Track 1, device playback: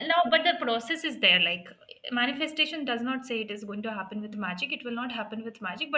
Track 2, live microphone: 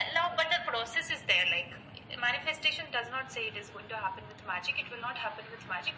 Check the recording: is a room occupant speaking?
No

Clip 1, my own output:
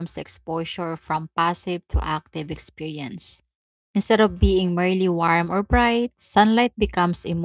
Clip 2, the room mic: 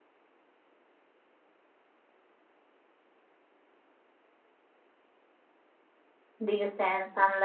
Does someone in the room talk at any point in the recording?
Yes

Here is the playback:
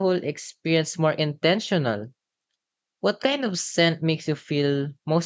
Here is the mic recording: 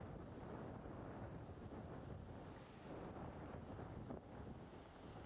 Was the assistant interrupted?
No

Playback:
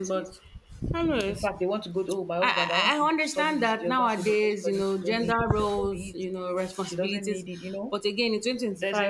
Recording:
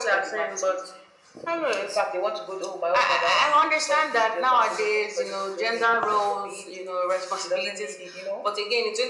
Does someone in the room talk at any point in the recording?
No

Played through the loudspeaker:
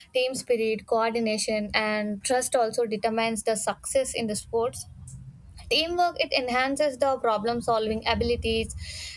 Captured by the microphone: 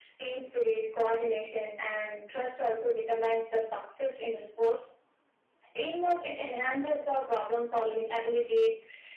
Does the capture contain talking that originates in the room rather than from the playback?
No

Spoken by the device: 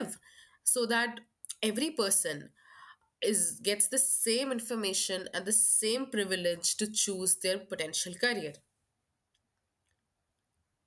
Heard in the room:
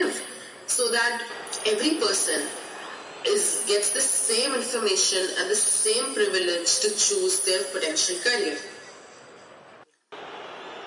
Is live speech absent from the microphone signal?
Yes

